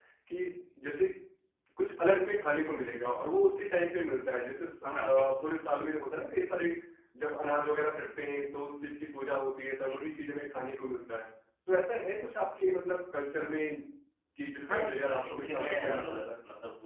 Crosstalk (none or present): present